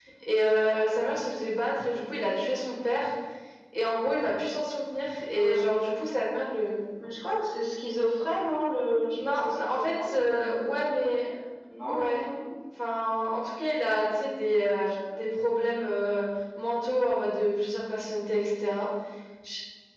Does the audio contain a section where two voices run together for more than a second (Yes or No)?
Yes